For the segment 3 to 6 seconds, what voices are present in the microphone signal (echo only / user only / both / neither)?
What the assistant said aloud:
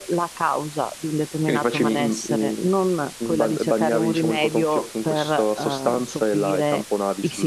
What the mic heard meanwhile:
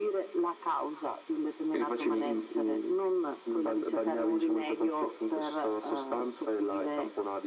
echo only